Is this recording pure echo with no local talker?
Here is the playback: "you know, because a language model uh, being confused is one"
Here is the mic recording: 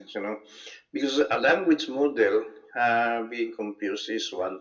Yes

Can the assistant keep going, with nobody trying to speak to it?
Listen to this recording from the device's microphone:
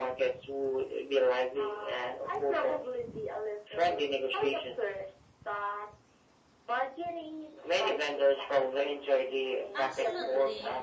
No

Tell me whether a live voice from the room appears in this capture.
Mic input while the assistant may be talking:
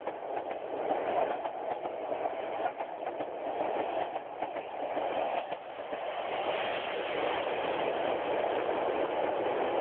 No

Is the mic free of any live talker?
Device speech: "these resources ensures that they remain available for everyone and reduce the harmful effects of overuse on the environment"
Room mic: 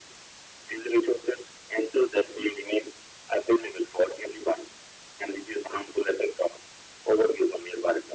Yes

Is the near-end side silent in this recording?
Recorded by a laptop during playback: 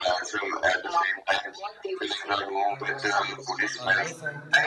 No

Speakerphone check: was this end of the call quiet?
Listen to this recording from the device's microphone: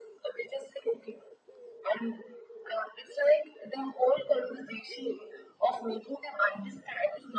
Yes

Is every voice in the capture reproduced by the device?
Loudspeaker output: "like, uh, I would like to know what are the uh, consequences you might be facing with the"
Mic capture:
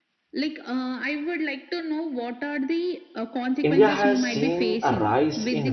No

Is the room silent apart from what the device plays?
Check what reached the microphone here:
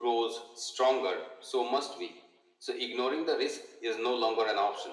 Yes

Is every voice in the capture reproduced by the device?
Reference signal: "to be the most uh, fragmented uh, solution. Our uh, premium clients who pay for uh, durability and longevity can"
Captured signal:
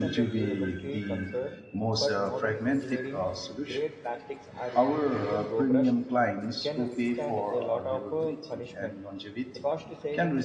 No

